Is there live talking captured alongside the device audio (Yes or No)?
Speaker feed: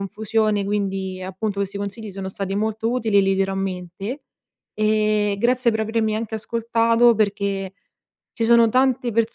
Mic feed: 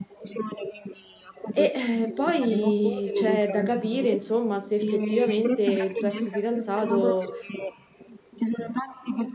Yes